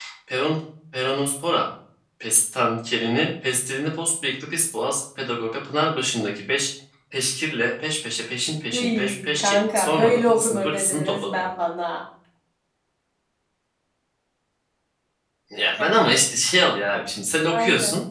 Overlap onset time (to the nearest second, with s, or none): 9 s